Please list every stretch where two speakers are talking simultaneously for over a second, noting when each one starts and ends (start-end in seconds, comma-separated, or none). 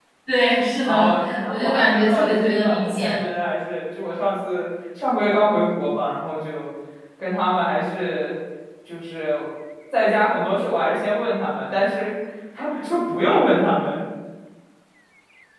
0.8-3.2